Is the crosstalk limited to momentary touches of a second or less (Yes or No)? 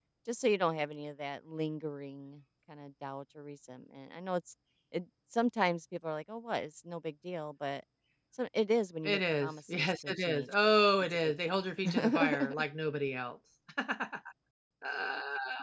No